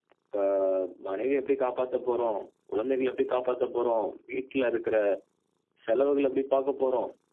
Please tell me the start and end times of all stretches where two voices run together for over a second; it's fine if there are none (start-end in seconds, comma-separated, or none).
none